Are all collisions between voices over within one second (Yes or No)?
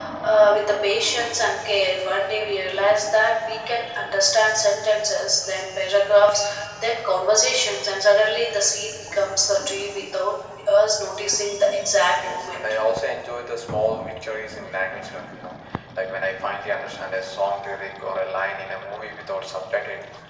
Yes